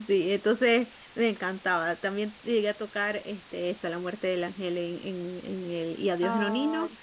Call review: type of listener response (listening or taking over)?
listening